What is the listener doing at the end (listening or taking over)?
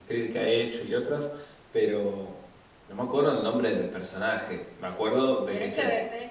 taking over